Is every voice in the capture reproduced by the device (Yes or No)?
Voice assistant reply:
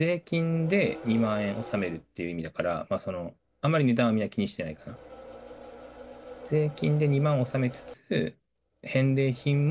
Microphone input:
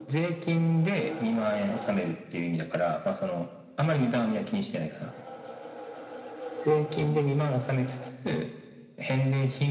Yes